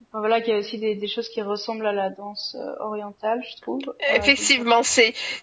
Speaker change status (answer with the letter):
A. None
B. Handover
B